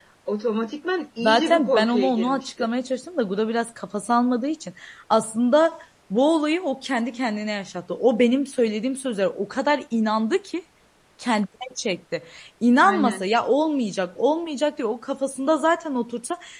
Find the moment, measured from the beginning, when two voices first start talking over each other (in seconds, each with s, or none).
1.2 s